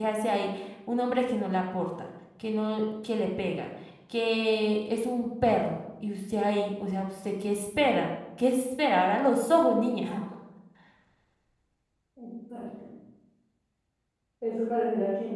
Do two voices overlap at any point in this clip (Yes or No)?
No